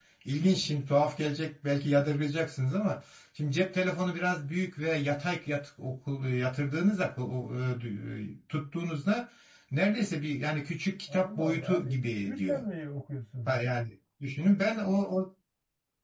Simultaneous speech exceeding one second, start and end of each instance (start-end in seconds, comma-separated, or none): 11.1-12.6